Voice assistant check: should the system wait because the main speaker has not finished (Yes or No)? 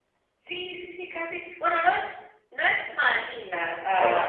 No